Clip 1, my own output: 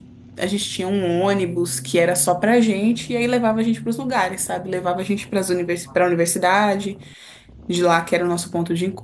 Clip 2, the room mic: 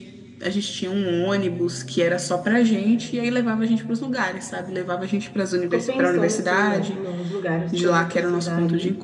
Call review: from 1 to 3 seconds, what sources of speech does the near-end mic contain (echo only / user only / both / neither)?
echo only